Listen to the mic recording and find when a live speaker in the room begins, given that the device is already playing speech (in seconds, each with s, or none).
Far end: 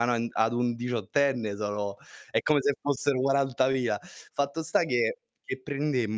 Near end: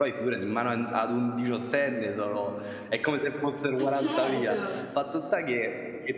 3.7 s